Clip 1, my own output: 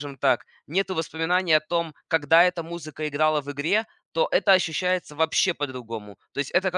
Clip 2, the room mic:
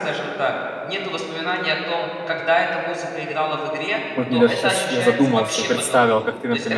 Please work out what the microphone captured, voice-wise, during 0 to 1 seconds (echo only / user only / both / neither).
echo only